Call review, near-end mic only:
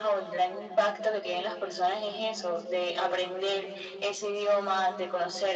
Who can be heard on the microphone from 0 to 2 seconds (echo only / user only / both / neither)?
echo only